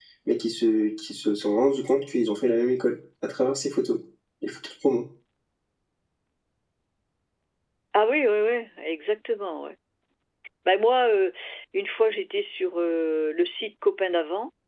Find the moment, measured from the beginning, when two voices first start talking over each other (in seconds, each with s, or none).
none